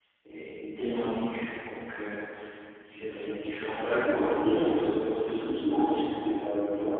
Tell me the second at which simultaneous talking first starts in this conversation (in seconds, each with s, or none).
3.0 s